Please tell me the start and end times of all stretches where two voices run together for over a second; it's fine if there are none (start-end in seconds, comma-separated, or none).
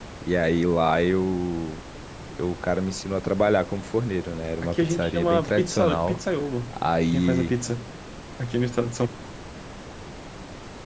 4.6-6.2